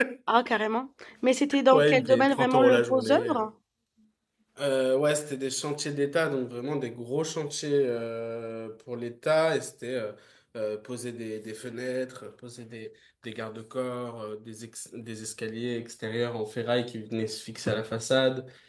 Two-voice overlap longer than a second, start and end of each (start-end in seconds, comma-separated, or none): 1.7-3.5